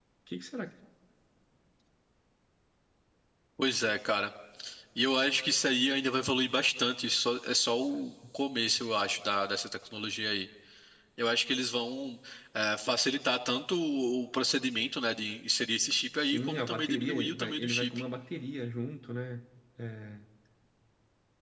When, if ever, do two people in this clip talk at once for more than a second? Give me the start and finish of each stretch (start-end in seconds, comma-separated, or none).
16.2-17.9